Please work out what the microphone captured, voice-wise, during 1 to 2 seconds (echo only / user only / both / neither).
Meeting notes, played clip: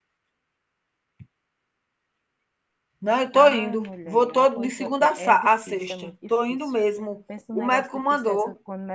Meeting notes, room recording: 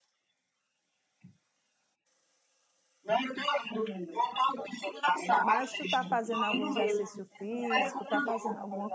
neither